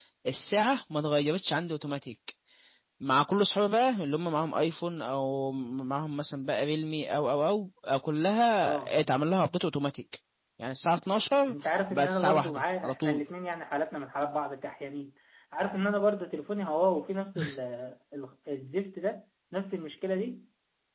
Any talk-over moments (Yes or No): Yes